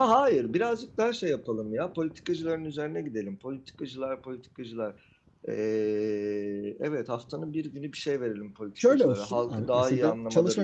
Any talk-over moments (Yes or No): Yes